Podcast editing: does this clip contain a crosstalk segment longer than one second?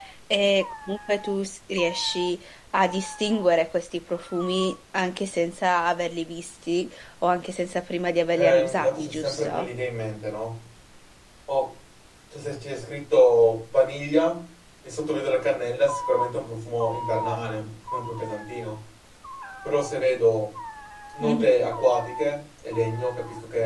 Yes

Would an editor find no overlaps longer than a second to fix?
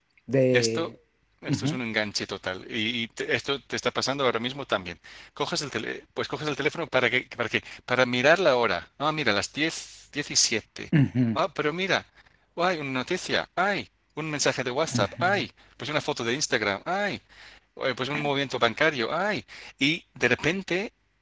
Yes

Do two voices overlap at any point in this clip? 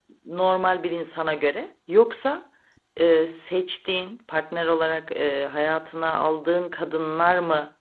No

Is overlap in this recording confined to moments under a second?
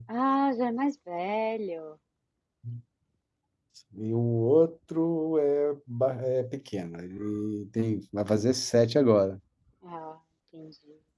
Yes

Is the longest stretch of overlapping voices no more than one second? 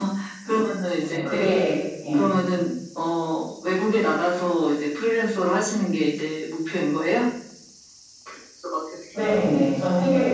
Yes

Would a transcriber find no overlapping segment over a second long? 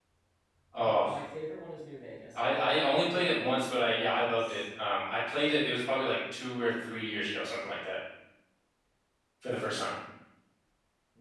No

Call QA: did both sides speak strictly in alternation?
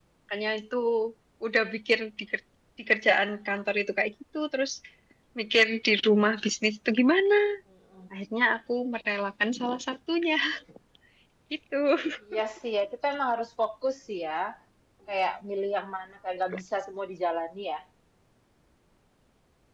Yes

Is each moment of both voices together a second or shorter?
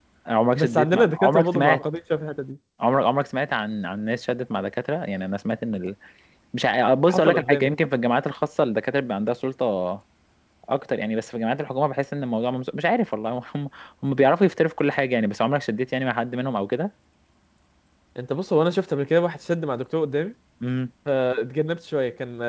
No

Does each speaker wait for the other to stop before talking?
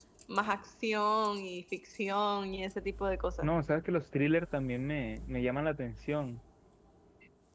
Yes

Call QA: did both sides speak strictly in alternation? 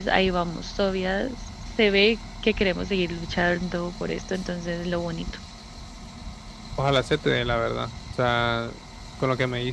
Yes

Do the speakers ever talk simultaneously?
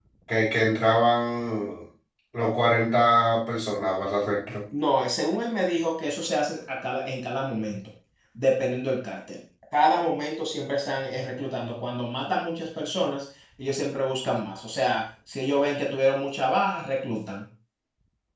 No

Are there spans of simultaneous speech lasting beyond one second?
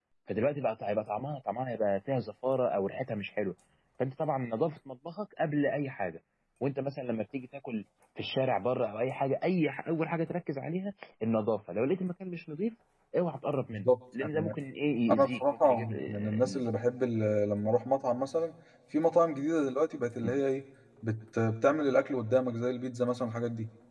Yes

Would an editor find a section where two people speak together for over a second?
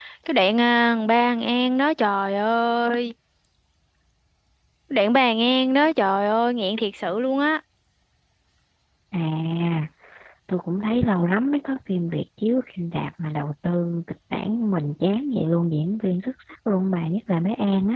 No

